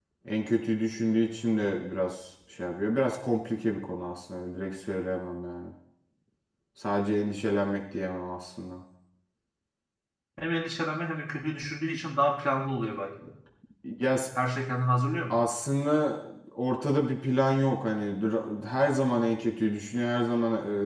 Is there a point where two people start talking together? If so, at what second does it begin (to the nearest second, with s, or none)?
none